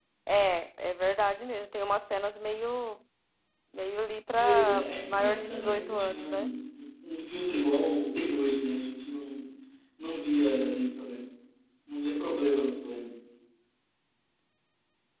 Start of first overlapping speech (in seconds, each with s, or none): 4.4 s